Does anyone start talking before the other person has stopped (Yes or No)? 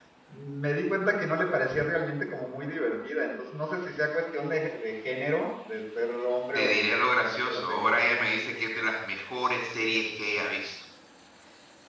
Yes